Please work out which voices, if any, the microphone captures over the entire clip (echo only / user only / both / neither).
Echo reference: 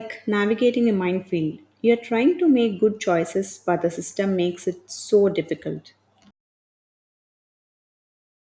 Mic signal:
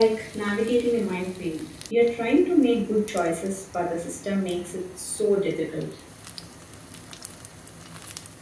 echo only